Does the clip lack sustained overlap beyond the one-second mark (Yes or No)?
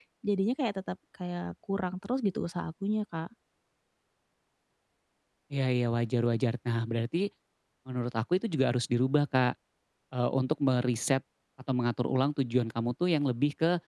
Yes